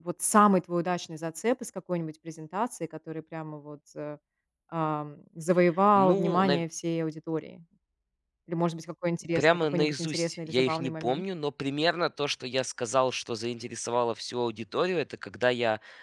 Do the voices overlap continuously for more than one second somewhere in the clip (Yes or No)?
Yes